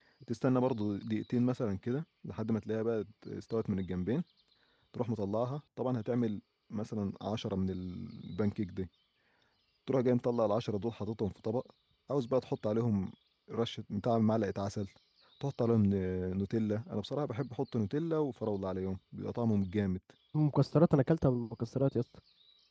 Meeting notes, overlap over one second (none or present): none